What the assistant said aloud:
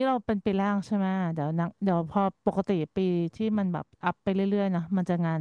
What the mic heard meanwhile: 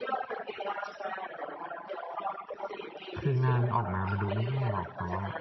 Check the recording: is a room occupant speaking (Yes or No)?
Yes